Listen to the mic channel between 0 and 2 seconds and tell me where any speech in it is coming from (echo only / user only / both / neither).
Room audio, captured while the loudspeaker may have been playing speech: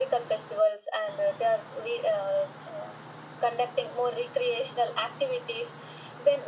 echo only